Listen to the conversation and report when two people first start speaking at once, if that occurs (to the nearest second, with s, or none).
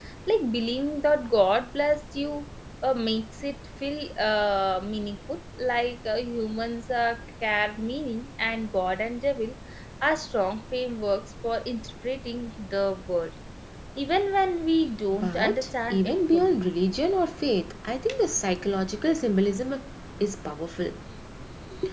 15 s